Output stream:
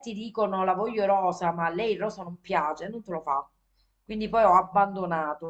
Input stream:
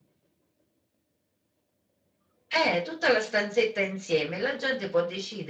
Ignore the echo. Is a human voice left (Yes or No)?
Yes